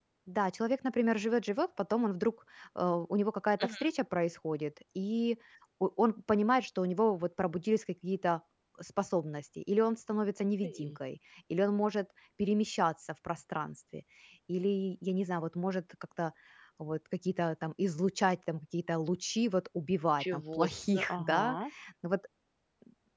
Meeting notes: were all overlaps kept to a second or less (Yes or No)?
No